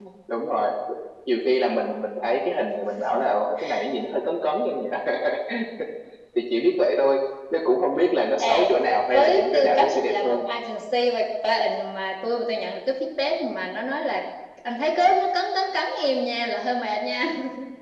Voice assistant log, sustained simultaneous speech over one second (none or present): present